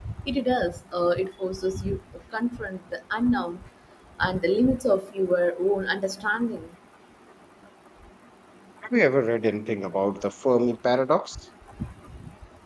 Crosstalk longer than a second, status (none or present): none